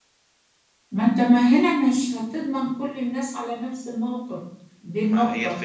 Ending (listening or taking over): taking over